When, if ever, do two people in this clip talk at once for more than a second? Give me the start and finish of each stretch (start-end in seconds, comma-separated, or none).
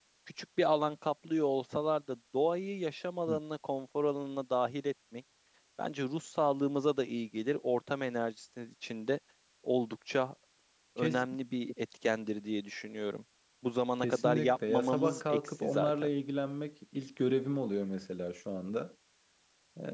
14.0-15.9